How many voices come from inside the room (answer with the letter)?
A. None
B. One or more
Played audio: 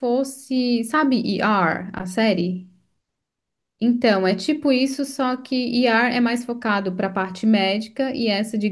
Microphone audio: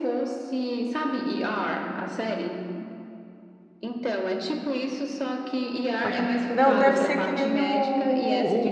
B